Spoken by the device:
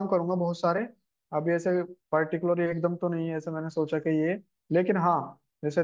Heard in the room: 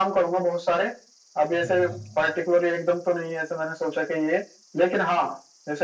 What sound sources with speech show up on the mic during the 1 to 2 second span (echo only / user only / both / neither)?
both